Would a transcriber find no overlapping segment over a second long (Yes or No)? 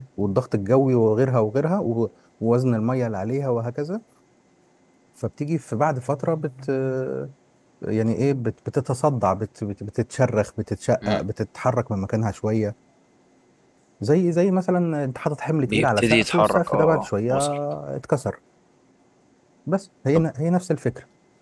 No